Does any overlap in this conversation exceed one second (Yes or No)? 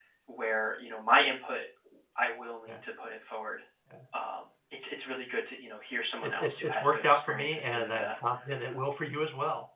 Yes